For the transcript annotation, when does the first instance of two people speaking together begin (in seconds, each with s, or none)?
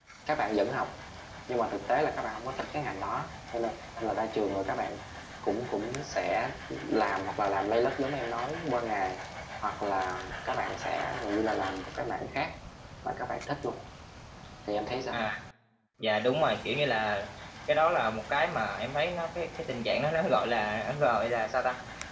none